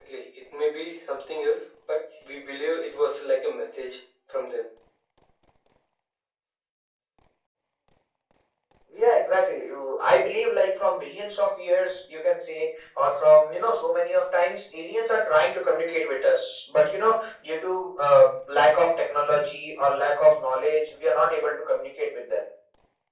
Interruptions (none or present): none